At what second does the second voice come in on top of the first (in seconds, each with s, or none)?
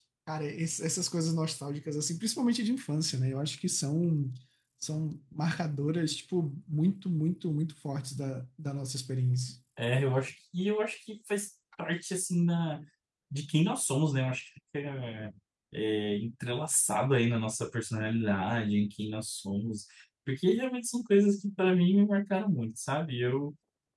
none